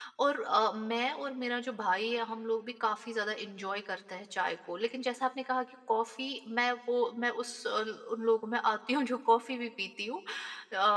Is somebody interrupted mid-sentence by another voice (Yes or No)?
No